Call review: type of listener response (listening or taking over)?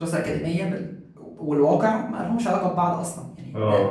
listening